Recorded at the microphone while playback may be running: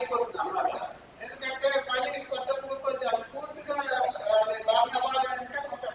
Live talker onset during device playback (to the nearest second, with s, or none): none